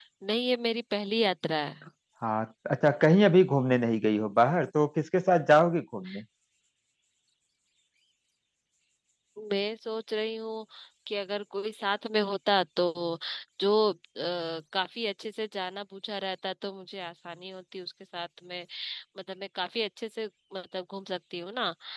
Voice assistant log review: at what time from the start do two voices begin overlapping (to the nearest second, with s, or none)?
none